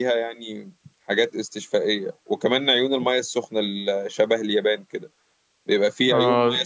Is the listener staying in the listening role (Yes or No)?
Yes